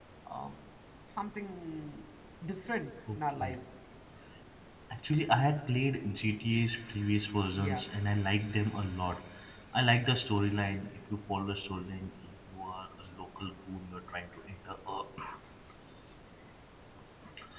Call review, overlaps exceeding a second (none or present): none